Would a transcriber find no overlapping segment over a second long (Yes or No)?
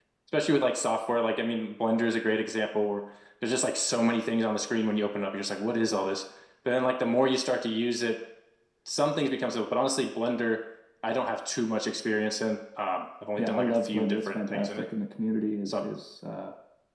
No